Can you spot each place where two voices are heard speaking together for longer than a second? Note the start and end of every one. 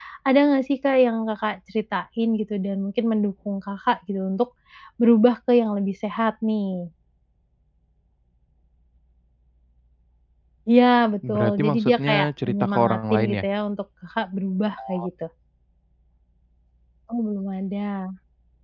11.3-13.3

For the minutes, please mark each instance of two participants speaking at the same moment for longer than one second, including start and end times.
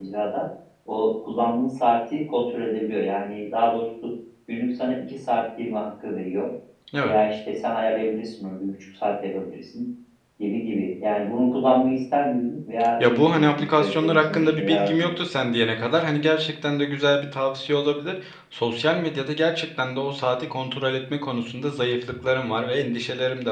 13.0-15.2

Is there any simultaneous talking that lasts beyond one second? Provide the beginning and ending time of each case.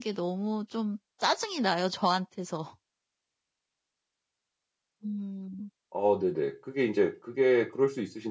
none

